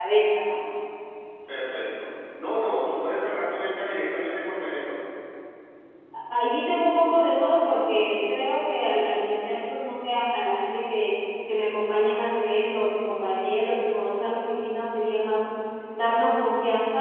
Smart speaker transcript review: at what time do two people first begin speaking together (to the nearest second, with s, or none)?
none